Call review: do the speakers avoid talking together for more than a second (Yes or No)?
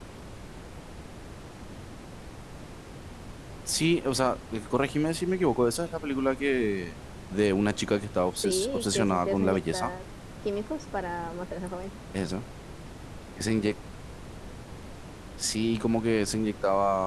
No